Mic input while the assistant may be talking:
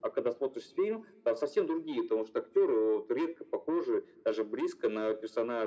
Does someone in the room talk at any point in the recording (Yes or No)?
No